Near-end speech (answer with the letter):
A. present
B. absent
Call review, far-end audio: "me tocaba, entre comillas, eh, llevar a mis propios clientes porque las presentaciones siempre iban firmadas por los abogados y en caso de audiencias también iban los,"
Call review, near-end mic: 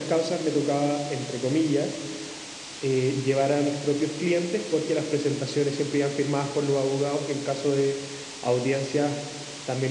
B